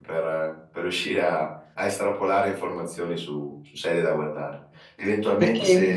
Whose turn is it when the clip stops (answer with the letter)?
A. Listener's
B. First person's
B